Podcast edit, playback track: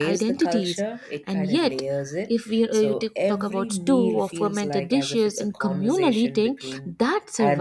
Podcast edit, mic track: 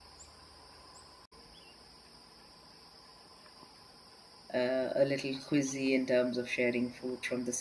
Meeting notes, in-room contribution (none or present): present